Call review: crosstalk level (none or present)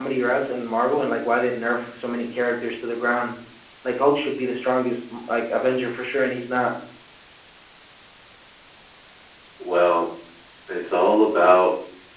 none